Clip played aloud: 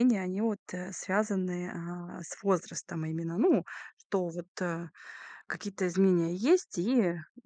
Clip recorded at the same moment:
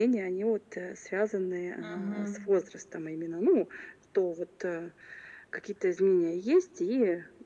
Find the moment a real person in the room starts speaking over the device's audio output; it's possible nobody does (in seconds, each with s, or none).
1.8 s